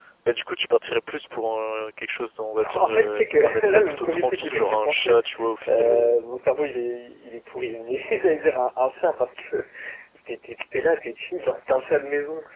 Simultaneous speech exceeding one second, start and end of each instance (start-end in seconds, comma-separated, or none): 2.7-5.2